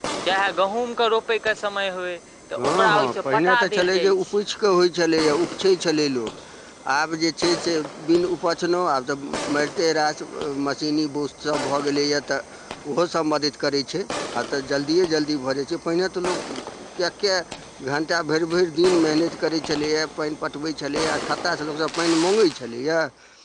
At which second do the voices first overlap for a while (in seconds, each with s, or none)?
2.6 s